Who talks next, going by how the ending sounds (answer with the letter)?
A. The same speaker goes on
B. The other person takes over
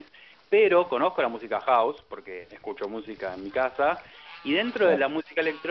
A